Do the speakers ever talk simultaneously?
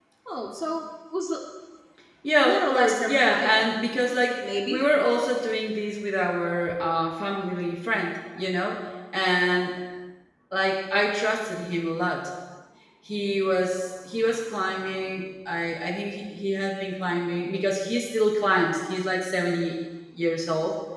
Yes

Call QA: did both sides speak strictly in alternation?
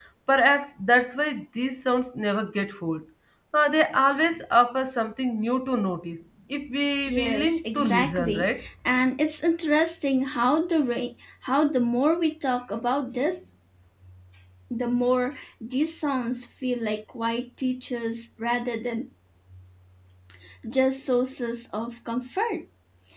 No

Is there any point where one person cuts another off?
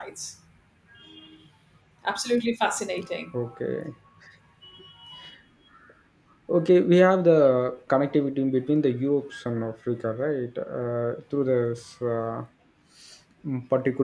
No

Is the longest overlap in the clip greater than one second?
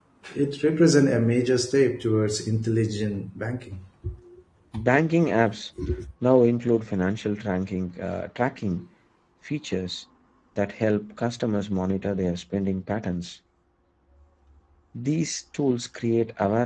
No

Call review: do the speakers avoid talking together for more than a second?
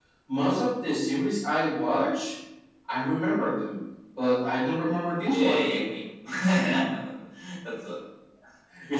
Yes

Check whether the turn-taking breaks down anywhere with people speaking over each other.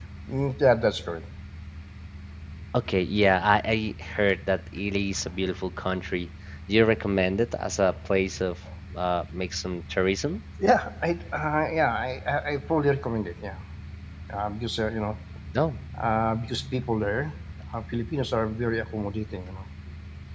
No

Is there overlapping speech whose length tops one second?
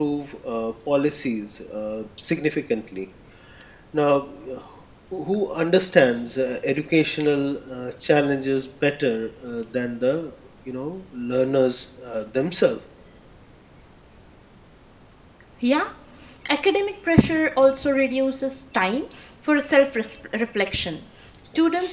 No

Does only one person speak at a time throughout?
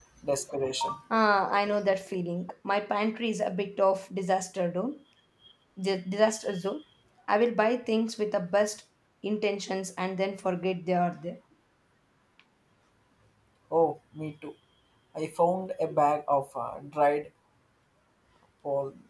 Yes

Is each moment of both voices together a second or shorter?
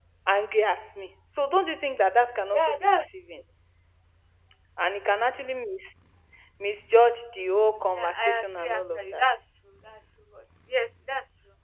No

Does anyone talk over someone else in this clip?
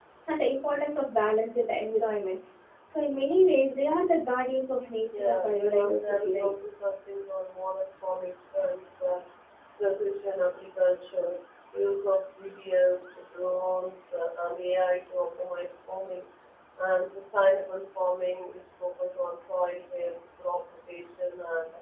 Yes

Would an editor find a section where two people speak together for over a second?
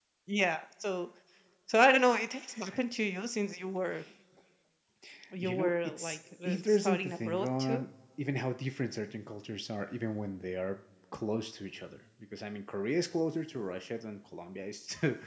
Yes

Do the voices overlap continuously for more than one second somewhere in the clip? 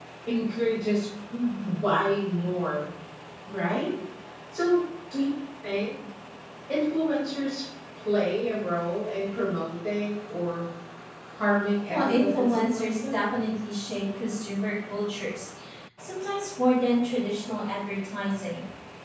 Yes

